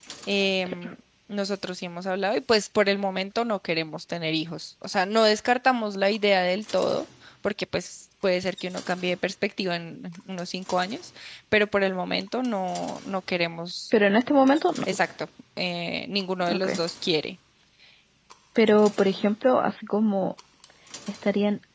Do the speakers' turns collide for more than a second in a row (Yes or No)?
No